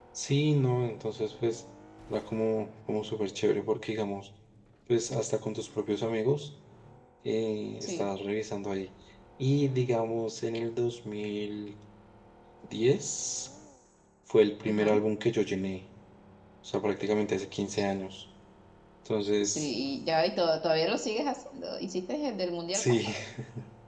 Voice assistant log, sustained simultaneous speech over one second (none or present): none